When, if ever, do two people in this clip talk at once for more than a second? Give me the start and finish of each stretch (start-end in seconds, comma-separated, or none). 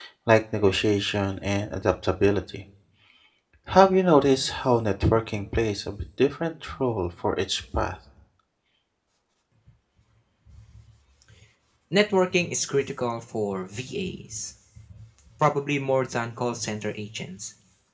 none